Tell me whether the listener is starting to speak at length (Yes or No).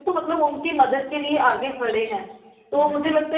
No